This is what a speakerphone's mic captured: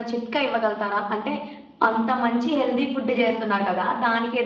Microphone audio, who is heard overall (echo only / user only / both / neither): echo only